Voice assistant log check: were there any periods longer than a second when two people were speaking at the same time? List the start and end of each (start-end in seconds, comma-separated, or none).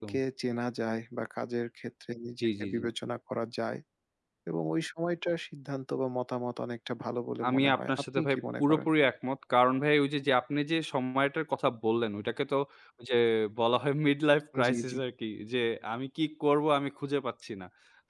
7.5-8.9